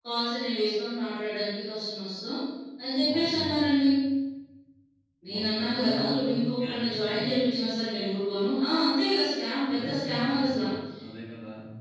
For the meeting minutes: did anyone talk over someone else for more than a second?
Yes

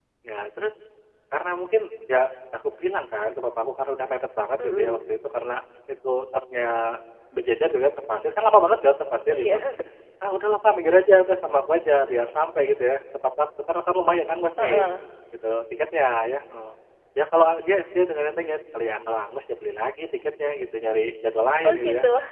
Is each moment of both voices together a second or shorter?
Yes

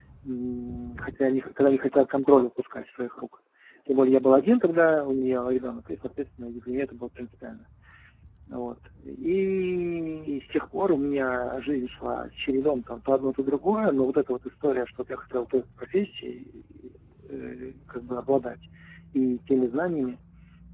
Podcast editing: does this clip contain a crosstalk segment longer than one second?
No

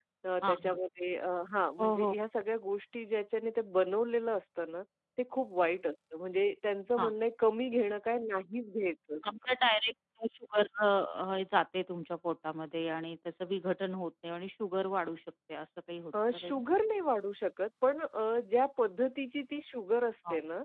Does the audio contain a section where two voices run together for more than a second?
No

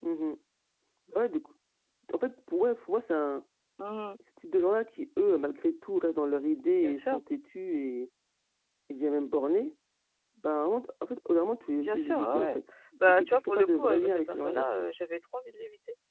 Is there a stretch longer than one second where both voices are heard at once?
Yes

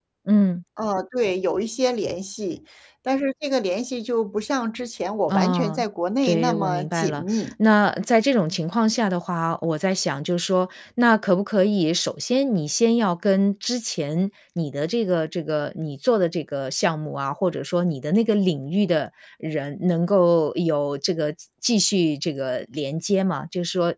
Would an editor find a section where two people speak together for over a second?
Yes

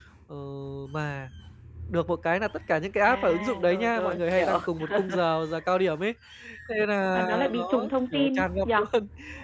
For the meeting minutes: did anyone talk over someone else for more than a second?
Yes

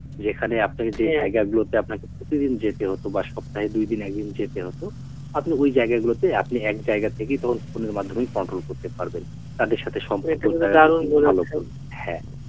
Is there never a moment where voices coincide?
No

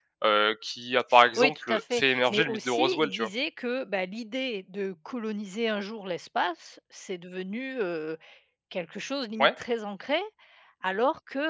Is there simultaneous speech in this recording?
Yes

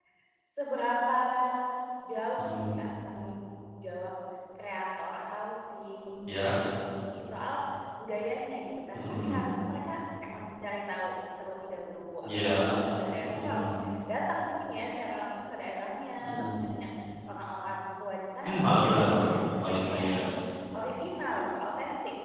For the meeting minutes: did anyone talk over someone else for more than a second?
Yes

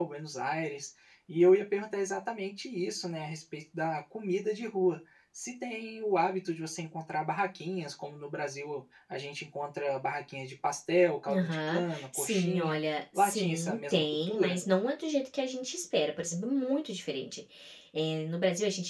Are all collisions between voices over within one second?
No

